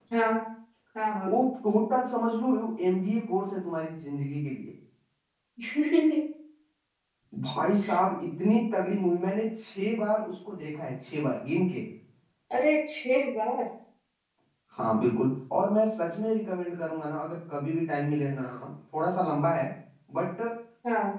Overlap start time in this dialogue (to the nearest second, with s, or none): none